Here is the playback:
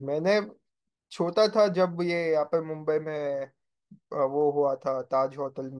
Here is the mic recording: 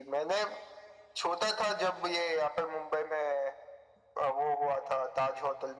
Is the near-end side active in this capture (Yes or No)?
No